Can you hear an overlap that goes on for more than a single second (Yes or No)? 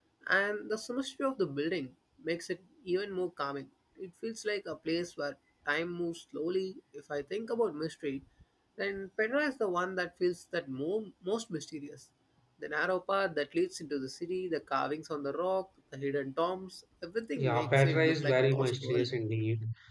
Yes